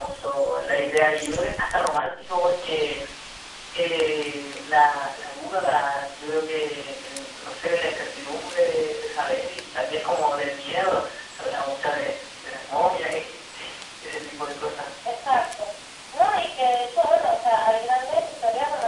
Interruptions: none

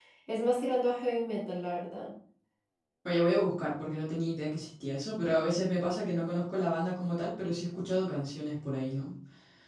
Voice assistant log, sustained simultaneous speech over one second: none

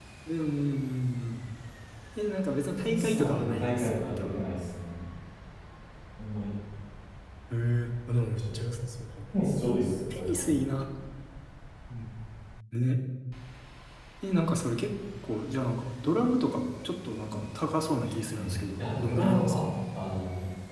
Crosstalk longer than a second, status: present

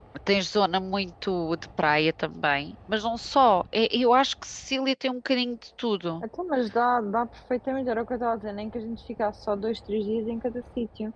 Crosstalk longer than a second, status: none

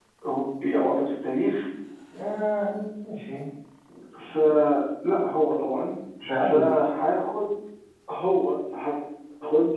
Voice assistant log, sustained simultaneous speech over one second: none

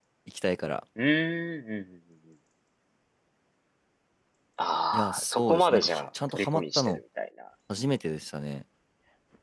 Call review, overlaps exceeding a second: present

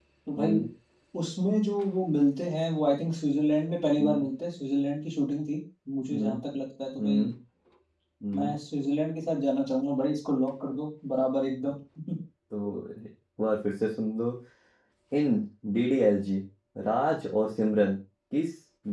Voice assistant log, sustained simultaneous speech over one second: none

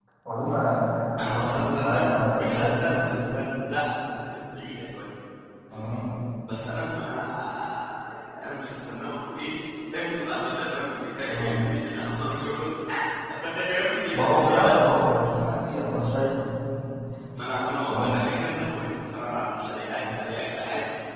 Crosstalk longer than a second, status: present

